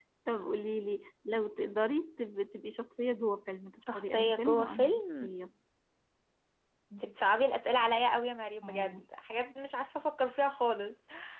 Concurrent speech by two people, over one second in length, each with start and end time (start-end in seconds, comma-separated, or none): 3.9-5.3